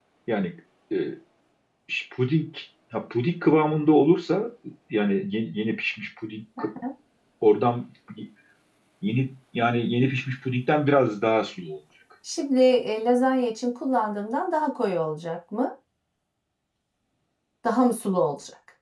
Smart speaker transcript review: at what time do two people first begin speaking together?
none

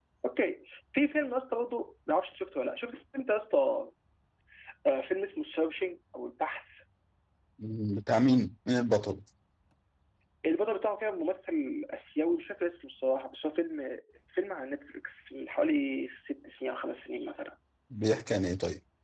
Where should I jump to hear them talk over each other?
none

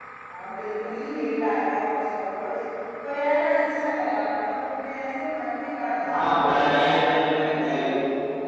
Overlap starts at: 6 s

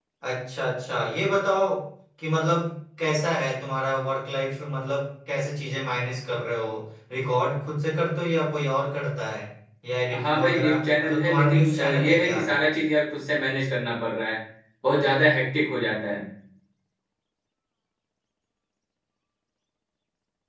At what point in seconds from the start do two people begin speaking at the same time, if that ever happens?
10 s

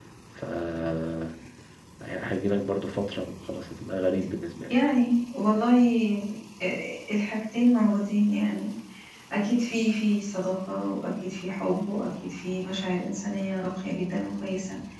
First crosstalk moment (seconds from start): none

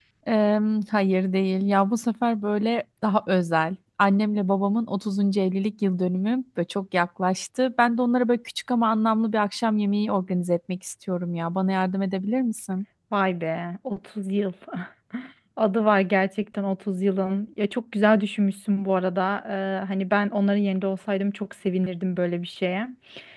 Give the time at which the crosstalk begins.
none

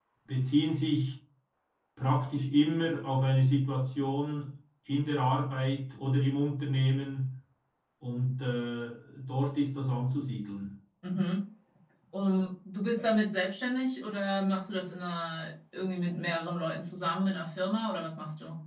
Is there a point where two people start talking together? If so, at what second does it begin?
none

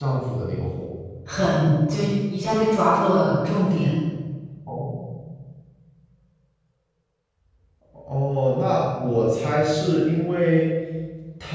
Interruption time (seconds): none

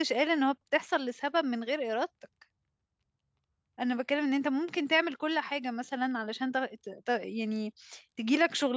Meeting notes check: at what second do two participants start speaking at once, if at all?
none

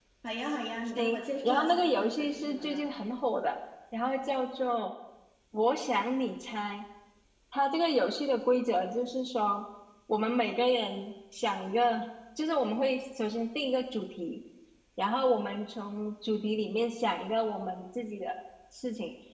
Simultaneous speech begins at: 1 s

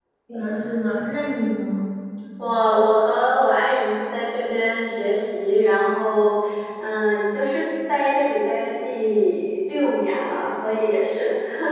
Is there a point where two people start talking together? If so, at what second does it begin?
none

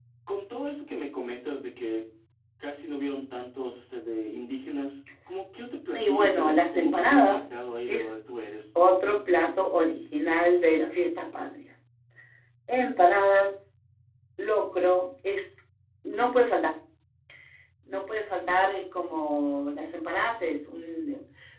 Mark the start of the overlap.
6 s

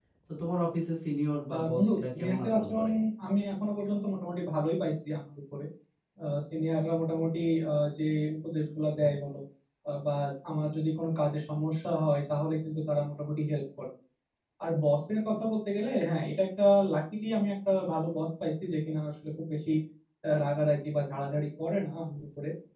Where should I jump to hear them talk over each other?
2 s

